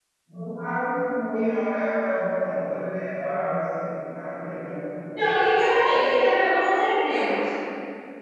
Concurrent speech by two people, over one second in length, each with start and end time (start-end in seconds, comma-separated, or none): none